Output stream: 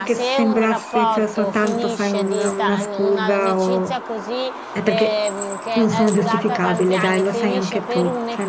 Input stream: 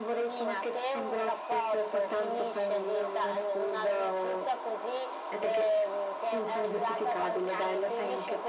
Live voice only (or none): none